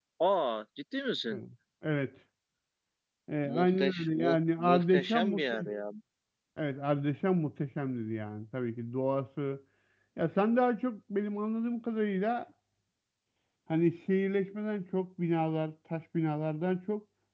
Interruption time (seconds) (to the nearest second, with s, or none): 3 s